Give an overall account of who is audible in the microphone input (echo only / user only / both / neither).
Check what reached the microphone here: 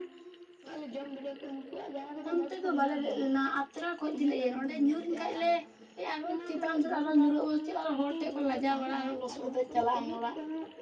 both